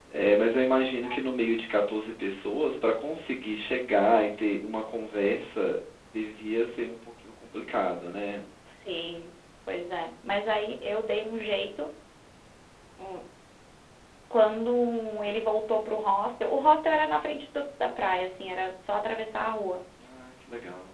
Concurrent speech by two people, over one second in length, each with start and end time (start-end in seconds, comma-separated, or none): none